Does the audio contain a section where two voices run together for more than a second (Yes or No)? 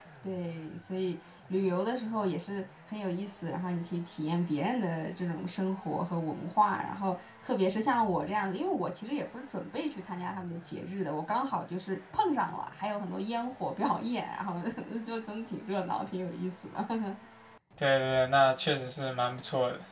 No